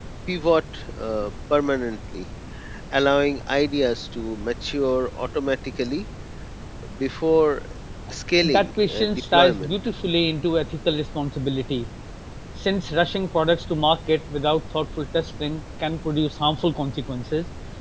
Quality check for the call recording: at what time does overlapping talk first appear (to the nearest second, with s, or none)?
8 s